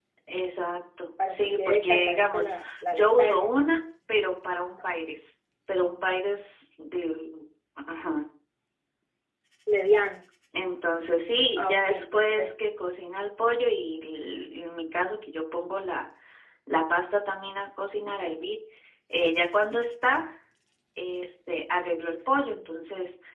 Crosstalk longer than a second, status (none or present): present